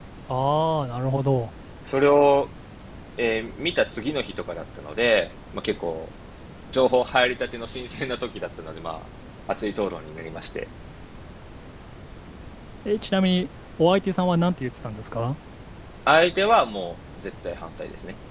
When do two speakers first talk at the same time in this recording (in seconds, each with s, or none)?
none